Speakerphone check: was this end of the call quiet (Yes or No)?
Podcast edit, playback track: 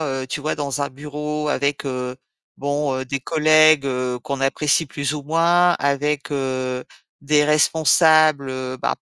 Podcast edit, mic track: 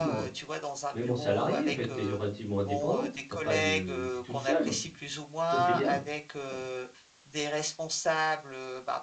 No